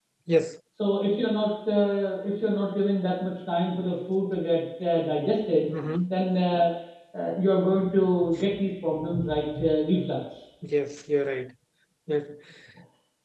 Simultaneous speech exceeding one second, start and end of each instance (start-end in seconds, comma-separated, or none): none